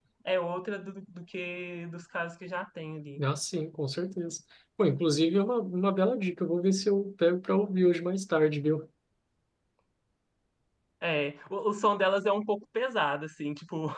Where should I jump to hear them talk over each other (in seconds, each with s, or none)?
none